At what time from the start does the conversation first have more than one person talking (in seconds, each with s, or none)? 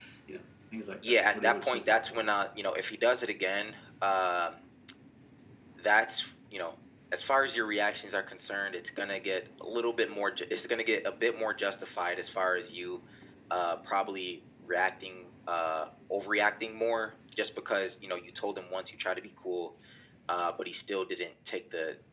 1.1 s